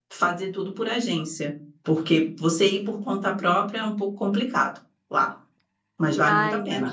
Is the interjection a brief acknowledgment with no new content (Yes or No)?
No